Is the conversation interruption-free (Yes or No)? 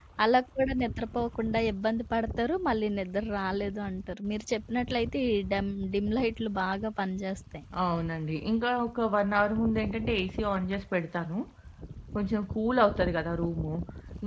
Yes